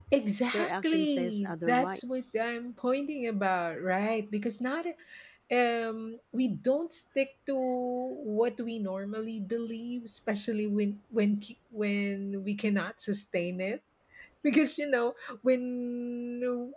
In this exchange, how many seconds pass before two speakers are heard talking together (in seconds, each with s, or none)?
0.5 s